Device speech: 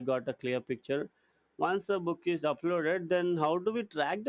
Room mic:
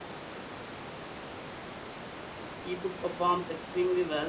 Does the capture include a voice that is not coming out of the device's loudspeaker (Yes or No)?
Yes